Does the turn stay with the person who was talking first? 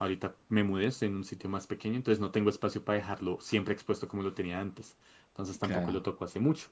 Yes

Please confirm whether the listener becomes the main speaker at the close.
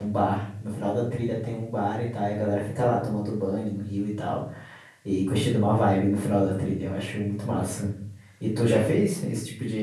No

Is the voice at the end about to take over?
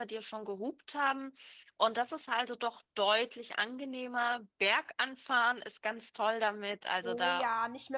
Yes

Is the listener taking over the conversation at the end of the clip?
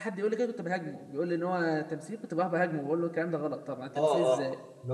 Yes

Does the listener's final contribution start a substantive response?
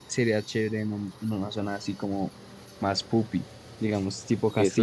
Yes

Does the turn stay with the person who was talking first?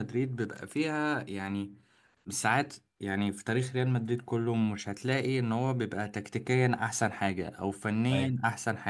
Yes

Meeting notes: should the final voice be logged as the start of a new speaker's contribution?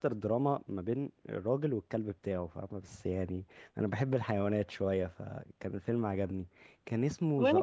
No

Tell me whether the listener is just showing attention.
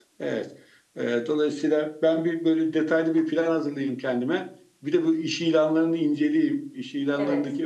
Yes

